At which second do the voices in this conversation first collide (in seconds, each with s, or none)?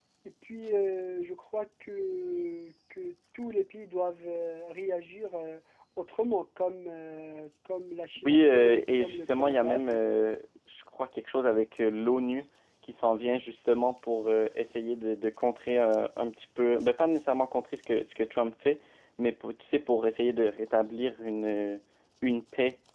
8.2 s